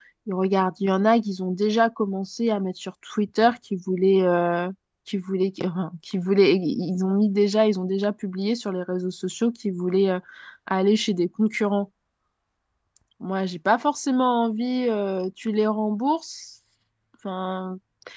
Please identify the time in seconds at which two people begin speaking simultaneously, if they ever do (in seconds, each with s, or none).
none